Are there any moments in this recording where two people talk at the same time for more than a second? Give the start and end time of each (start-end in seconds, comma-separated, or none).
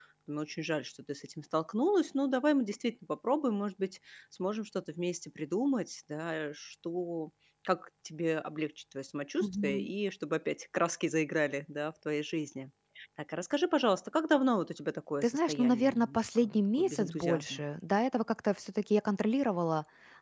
15.2-17.6